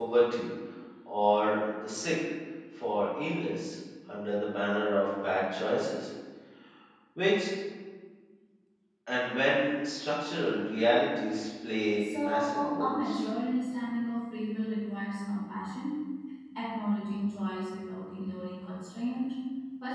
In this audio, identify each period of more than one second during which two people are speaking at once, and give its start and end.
12.0-13.3

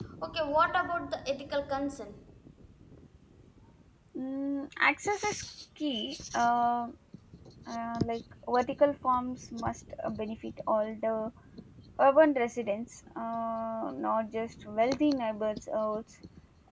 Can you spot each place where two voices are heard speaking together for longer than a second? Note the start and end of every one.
none

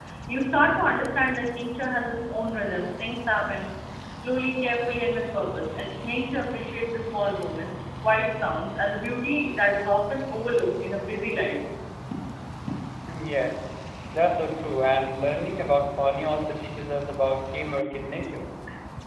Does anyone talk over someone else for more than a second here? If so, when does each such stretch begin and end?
none

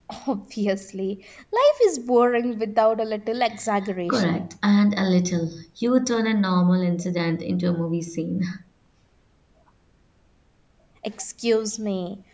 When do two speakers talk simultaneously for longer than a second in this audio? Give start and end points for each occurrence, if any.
none

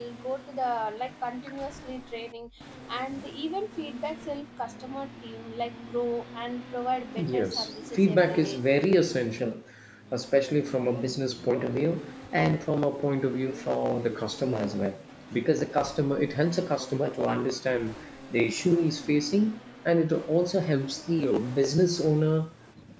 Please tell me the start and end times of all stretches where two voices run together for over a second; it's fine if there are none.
7.2-8.6

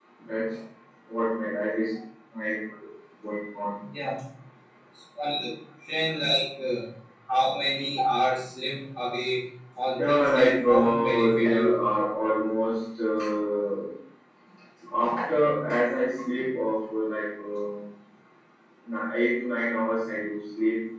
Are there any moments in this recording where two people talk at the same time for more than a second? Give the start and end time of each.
10.1-11.7

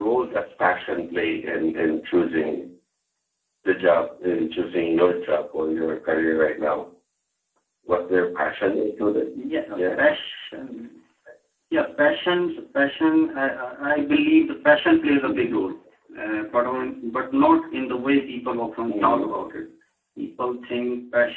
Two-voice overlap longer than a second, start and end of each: none

